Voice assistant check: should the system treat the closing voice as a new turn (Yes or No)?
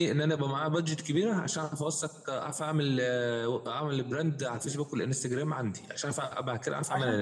Yes